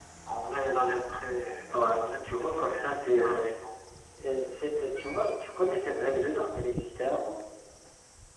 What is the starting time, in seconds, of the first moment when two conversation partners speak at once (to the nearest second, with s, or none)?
2 s